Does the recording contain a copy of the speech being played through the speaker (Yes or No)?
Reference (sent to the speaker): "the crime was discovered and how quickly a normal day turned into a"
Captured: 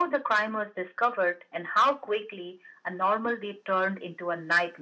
Yes